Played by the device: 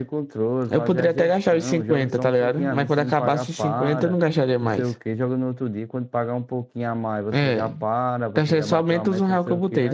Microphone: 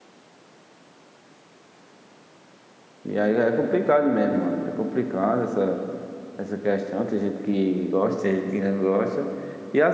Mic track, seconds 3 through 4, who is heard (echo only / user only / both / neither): user only